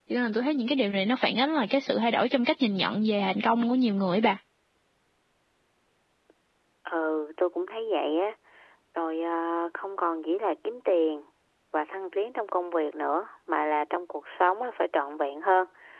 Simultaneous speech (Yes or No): No